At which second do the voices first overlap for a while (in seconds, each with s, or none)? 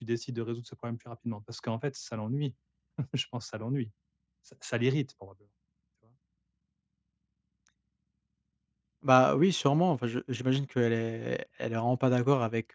none